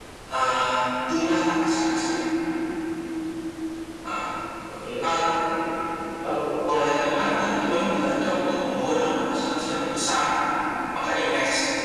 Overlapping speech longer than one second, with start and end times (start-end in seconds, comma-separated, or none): 6.7-7.9